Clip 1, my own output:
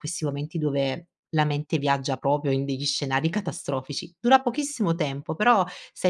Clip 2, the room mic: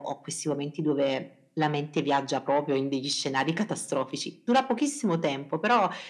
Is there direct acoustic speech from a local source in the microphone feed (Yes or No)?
No